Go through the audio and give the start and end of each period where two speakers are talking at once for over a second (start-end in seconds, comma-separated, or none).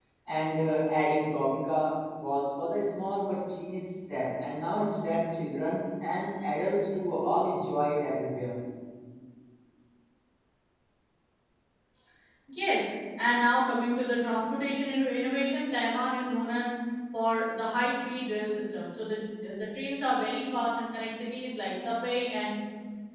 none